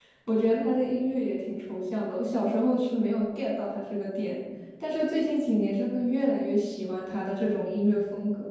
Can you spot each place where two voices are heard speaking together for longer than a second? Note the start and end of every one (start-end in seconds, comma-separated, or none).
none